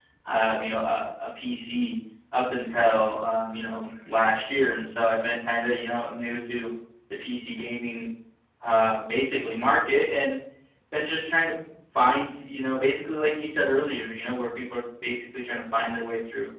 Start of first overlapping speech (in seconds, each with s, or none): none